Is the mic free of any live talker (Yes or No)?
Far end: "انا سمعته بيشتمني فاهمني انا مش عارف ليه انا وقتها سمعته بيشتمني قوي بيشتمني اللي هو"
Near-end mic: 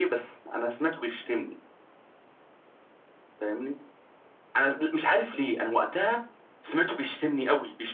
Yes